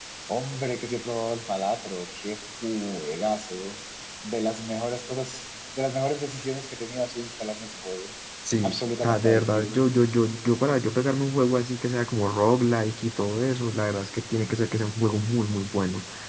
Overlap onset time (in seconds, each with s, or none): 8.6 s